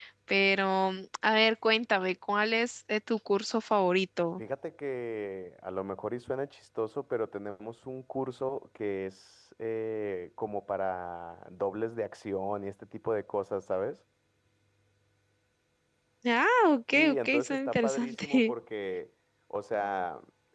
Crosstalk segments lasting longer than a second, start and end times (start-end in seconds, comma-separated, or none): 17.0-18.5